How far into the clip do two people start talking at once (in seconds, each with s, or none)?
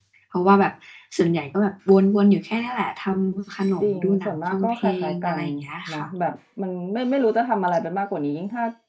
3.8 s